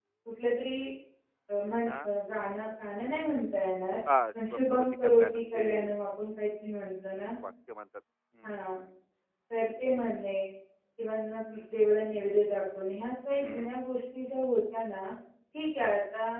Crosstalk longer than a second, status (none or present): present